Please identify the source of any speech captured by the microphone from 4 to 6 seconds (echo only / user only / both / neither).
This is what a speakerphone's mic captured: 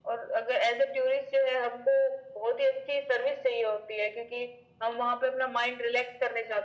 echo only